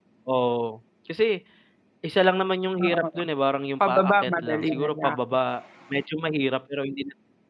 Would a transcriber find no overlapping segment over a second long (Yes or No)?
No